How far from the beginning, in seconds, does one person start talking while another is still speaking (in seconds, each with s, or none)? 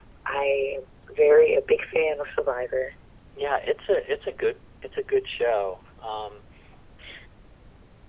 none